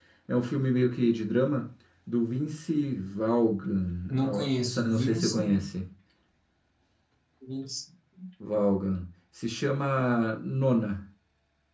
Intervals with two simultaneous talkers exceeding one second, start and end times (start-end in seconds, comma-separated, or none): 4.1-5.6